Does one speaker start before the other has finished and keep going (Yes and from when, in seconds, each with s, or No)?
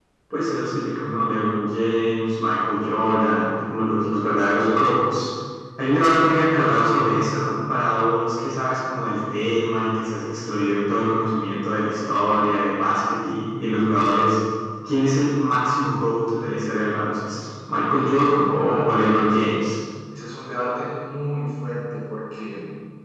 Yes, from 17.9 s